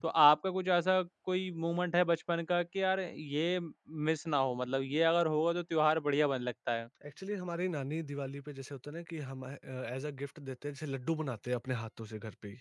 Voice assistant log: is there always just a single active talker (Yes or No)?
Yes